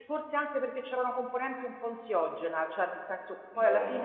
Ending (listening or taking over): listening